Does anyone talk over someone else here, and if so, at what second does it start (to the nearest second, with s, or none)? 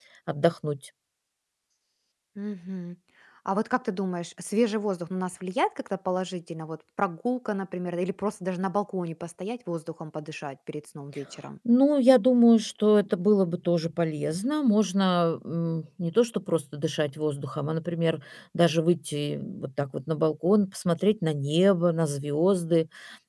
none